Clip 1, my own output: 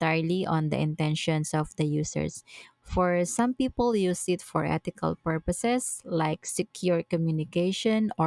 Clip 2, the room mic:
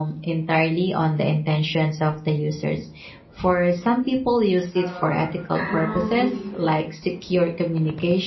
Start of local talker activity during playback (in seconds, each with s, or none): 4.8 s